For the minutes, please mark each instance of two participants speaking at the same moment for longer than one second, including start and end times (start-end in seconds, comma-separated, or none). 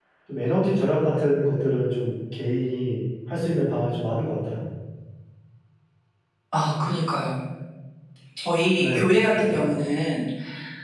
none